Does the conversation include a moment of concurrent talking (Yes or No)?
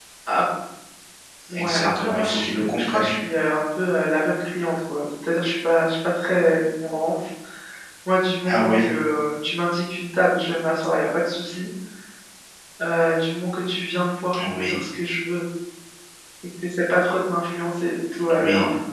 Yes